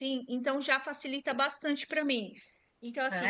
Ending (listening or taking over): listening